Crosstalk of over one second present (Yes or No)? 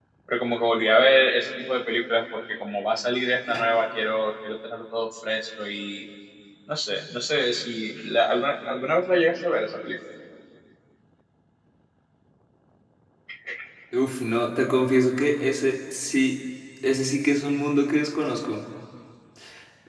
No